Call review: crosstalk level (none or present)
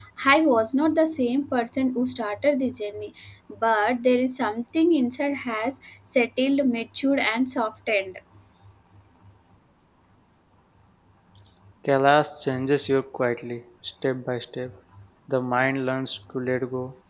none